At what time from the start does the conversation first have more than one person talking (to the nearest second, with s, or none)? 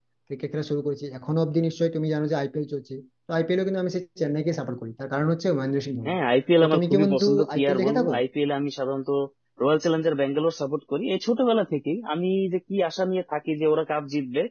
7 s